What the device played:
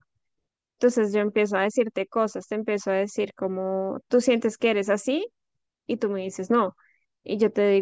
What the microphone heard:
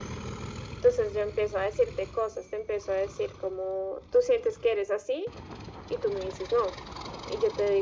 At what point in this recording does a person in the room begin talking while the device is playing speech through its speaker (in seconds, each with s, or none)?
none